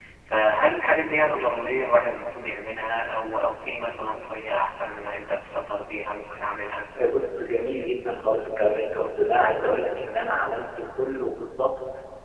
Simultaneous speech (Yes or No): No